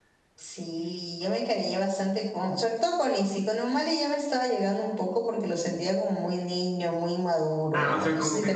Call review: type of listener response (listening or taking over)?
taking over